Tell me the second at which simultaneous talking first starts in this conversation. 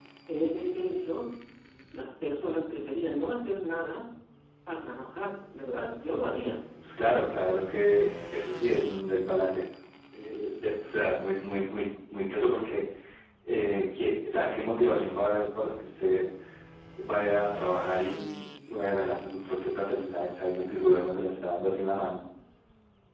none

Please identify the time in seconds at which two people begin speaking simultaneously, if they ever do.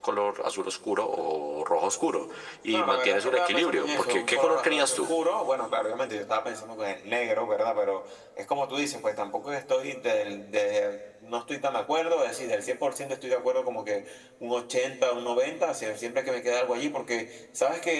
2.7 s

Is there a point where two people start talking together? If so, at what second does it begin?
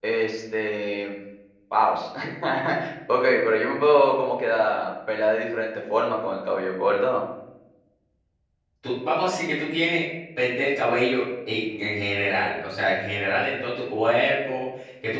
none

